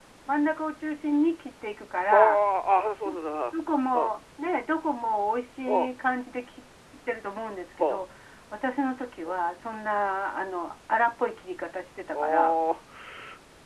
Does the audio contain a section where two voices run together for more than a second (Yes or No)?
No